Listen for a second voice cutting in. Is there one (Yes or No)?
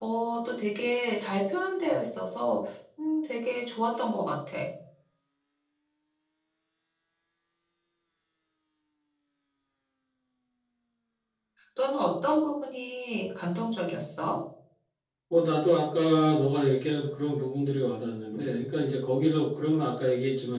No